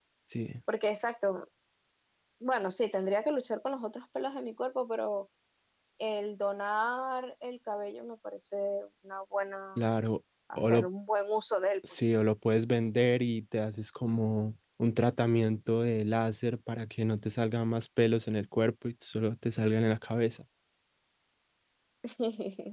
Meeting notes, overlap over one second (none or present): none